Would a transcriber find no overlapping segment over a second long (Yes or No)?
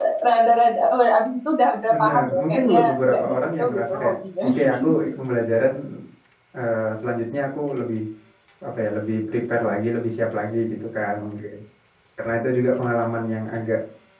No